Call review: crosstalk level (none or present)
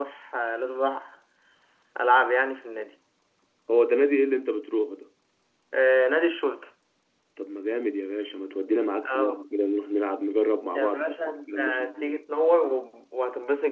present